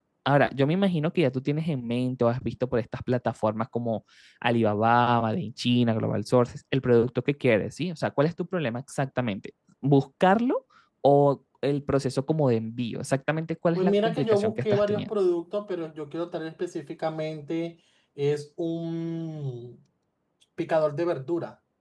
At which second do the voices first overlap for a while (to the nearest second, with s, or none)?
14 s